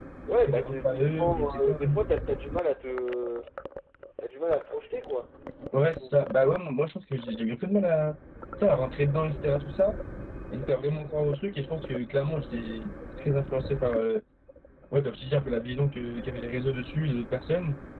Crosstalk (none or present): present